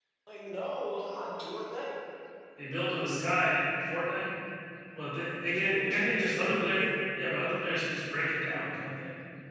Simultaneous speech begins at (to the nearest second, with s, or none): 6 s